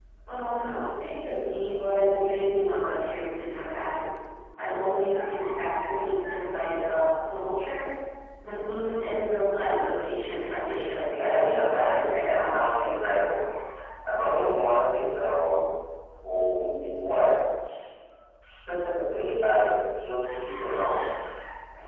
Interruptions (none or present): present